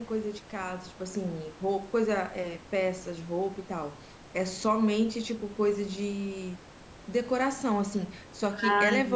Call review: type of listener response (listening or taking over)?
listening